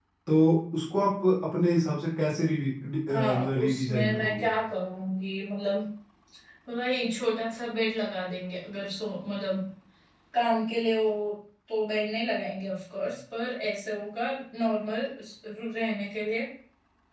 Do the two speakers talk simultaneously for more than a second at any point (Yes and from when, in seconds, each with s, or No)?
Yes, from 3.1 s